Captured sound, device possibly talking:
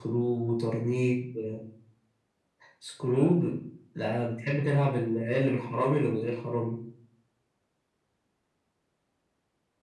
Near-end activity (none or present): none